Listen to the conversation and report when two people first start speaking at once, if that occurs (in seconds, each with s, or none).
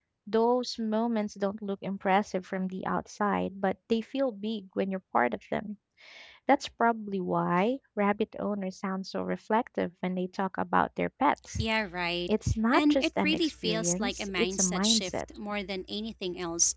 12.7 s